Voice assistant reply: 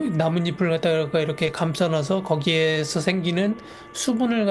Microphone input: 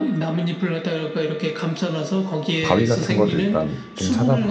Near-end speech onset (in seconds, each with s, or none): 2.6 s